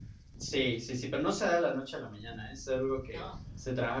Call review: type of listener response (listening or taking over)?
listening